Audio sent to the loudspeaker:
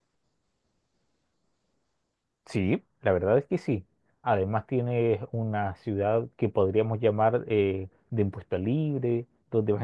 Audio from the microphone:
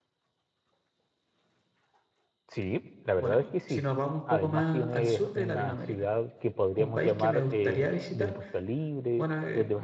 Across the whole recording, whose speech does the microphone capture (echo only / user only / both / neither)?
both